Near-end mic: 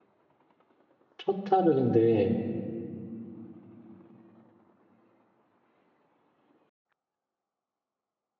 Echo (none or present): none